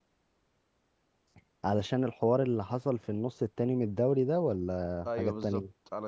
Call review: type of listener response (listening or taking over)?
taking over